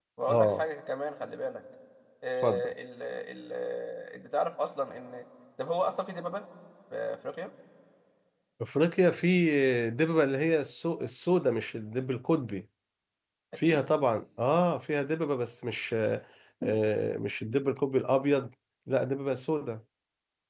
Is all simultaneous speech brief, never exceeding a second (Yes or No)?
Yes